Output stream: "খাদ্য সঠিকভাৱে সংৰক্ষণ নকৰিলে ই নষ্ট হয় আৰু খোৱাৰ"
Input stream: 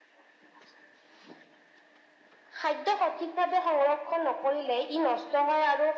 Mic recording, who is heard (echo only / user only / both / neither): echo only